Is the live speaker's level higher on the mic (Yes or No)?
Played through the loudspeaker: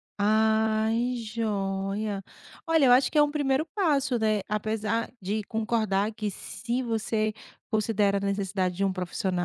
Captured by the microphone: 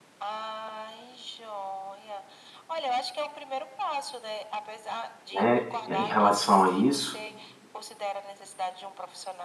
Yes